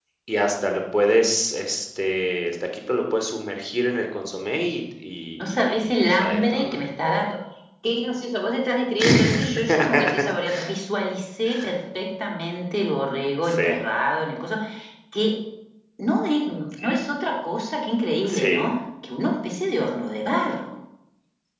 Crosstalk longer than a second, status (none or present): present